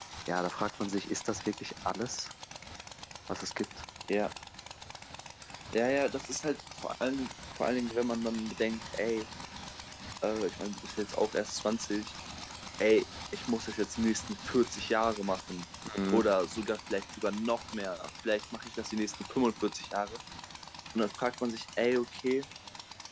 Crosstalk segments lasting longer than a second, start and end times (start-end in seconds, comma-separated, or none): none